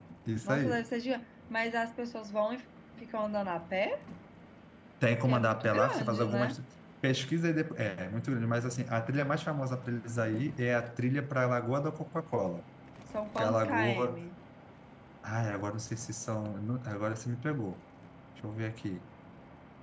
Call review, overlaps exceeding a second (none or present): present